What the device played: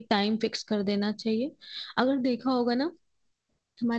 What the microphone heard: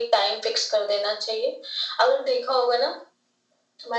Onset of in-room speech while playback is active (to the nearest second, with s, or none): none